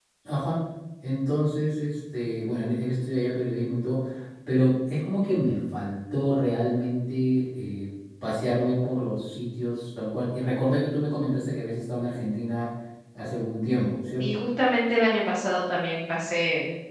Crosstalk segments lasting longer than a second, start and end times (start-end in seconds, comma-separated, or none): none